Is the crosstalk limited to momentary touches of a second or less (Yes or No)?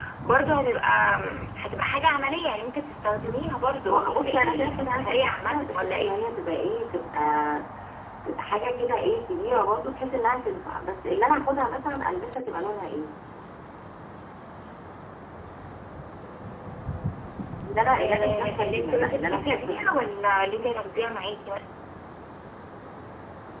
No